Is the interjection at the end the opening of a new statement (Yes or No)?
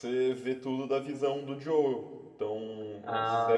No